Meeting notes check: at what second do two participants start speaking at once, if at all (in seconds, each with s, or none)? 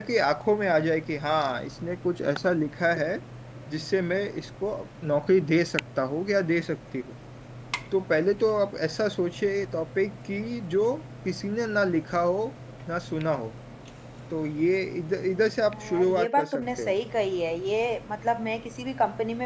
15.7 s